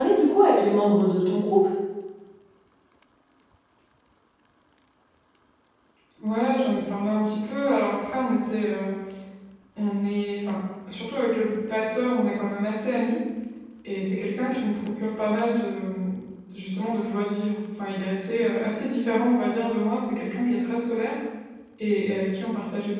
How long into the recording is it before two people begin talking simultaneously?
none

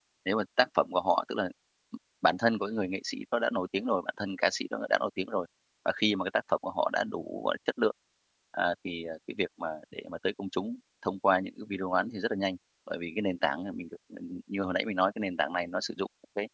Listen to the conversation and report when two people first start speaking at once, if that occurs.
none

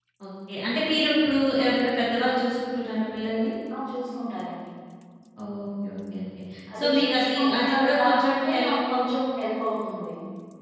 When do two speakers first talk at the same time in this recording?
7 s

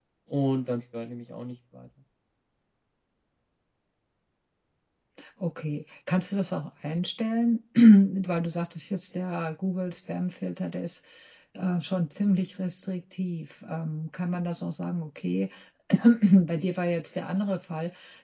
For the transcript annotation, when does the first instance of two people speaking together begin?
none

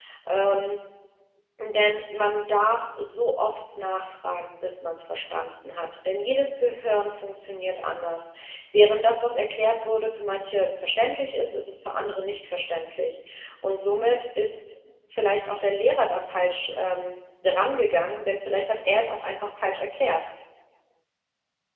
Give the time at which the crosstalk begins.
none

